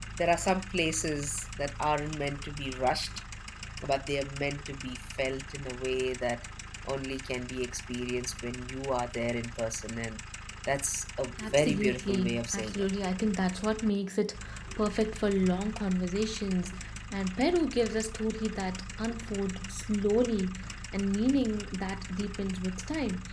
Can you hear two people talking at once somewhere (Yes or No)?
Yes